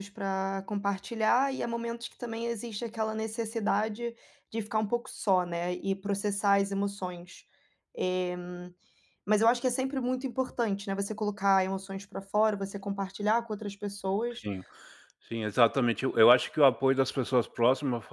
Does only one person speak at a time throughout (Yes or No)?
Yes